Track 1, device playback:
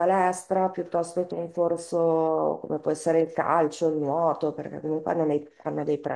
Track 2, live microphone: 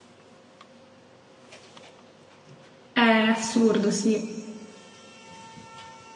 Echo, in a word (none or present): none